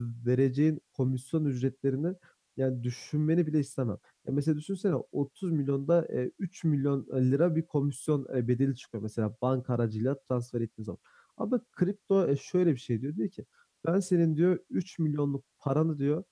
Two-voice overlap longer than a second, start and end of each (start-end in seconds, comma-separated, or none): none